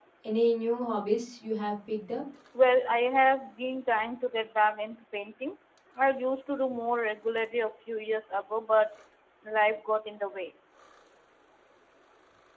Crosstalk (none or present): none